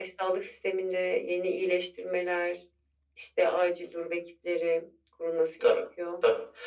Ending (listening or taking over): taking over